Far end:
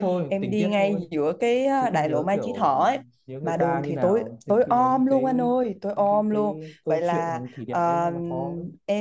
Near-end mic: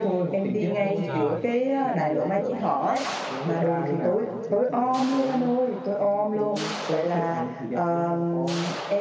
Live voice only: bố giời

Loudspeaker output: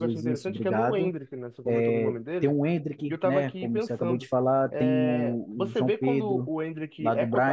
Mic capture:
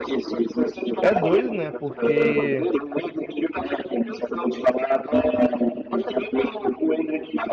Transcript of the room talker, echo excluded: é doido, né? Porque

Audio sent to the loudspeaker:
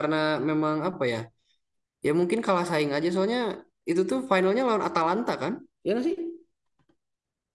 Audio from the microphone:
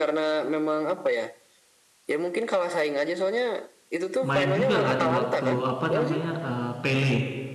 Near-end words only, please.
main juga kan waktu apa namanya eh, Pele,

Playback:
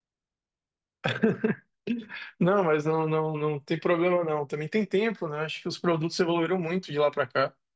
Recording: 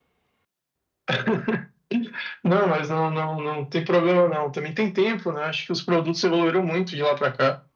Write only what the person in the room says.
none

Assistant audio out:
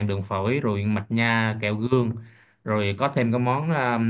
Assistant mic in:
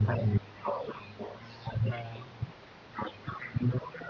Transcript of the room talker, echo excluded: và

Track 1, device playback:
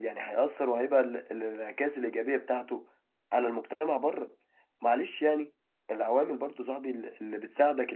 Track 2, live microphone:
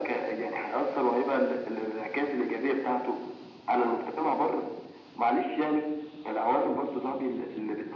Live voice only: none

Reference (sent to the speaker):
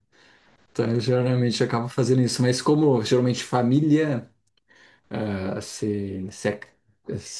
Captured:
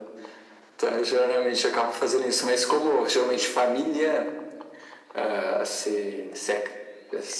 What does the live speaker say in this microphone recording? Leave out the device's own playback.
none

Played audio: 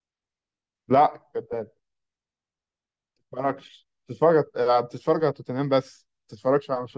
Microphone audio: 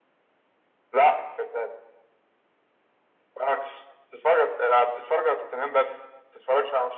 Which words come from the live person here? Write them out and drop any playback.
none

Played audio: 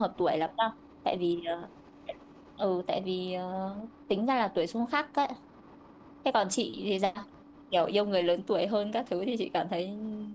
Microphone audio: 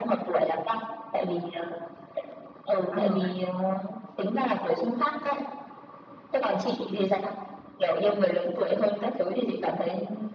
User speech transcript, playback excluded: áp lực ấy

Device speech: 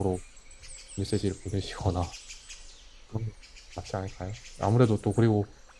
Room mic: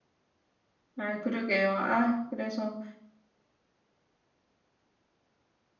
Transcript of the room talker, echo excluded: 아, 그러게요. 아, 그래서.

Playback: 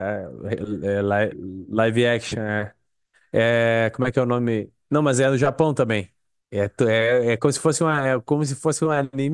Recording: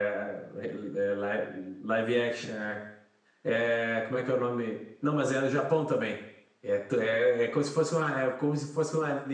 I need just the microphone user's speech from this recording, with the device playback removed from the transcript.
none

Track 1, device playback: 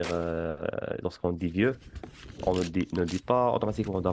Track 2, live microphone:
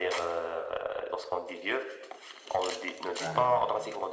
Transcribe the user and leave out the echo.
Ouais.

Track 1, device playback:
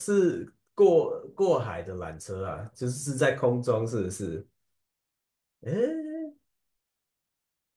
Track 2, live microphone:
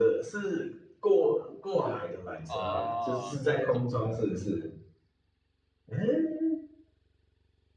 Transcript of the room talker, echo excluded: 哦，这种。的。

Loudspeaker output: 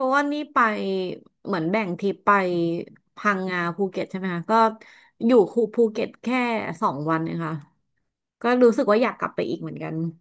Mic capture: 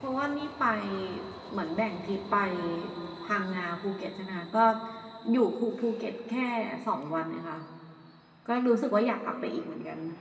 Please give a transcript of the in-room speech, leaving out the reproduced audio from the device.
none

